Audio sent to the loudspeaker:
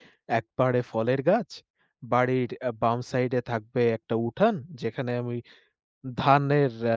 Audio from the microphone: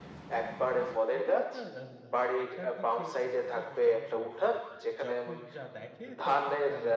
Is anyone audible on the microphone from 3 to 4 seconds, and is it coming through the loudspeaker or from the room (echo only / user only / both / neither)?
both